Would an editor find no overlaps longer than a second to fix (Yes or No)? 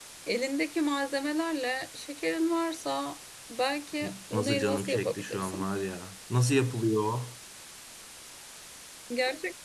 No